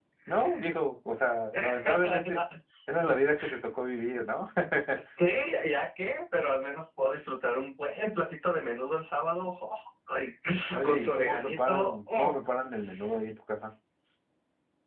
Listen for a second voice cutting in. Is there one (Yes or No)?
Yes